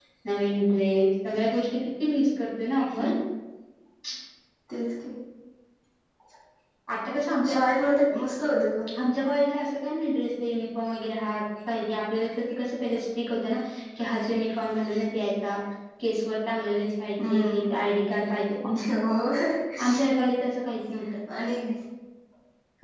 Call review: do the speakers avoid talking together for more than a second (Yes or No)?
Yes